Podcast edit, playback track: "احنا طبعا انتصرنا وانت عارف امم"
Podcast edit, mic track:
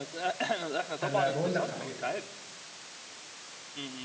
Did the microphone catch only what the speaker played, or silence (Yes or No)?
No